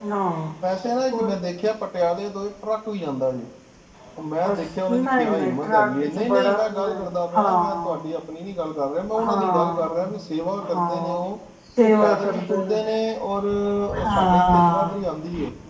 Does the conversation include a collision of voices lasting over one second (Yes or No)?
Yes